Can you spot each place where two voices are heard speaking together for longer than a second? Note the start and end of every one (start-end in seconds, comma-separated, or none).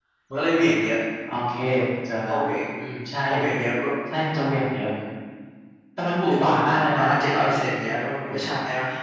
6.2-7.6